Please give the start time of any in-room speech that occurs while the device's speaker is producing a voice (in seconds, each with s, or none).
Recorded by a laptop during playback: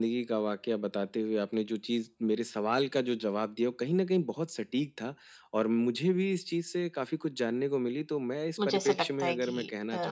8.6 s